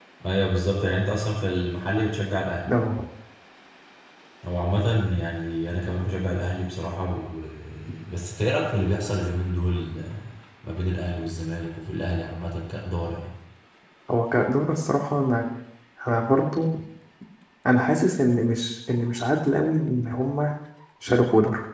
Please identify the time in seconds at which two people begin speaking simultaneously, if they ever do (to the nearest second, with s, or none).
none